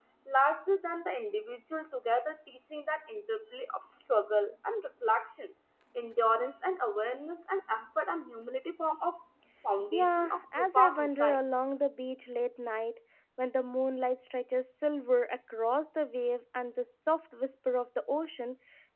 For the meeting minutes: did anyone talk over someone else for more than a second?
Yes, from 9.9 s

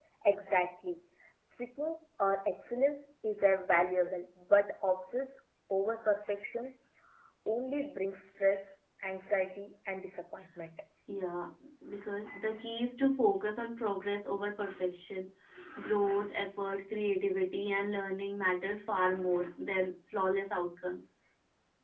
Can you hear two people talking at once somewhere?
No

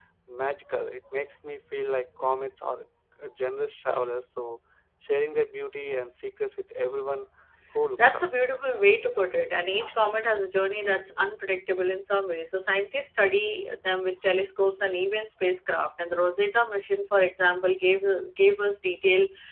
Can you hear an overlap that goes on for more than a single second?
No

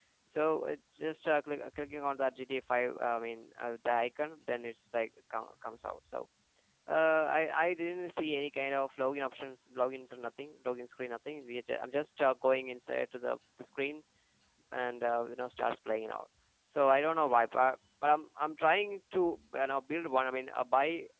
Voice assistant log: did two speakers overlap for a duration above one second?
No

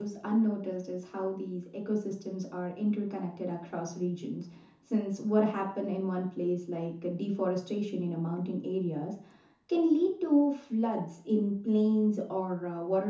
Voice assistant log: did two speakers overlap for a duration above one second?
No

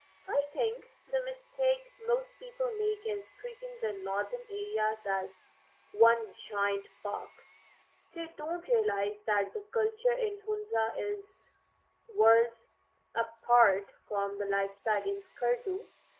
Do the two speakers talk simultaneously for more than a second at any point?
No

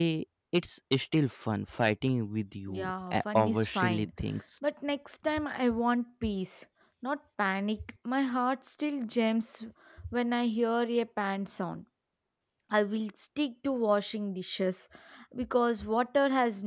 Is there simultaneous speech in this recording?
Yes, from 2.7 s

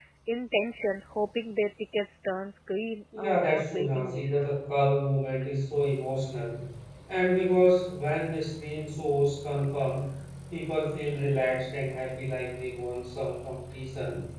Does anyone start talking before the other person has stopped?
Yes, from 3.1 s

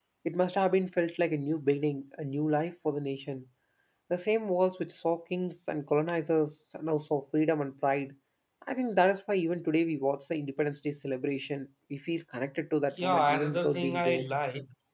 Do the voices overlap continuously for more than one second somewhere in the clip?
Yes, from 13.0 s

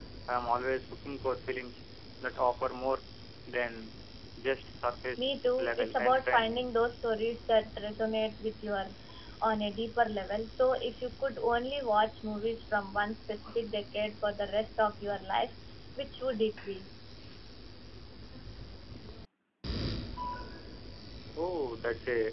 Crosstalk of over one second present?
Yes, from 5.2 s

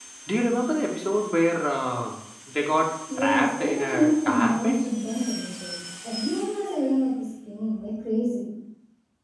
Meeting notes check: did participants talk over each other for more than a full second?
Yes, from 3.1 s

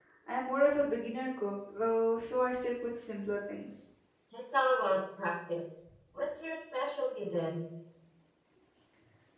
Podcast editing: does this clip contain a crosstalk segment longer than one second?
No

